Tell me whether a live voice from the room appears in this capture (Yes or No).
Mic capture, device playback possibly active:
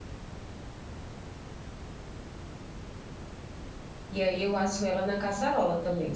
Yes